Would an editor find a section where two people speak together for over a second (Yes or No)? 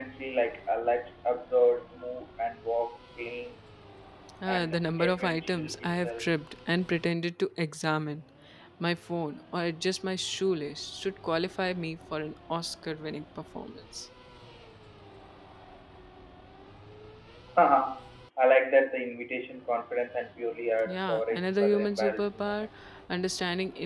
Yes